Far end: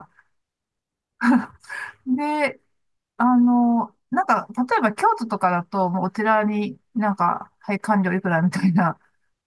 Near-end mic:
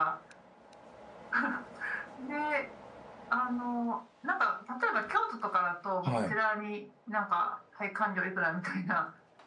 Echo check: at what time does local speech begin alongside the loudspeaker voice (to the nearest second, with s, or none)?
6 s